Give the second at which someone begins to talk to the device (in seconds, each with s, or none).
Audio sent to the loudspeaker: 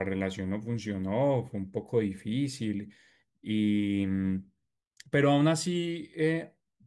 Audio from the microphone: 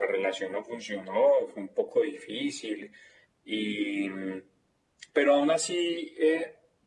none